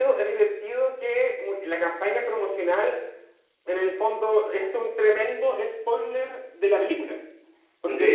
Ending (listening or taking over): listening